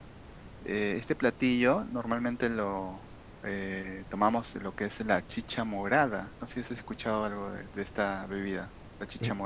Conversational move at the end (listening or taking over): taking over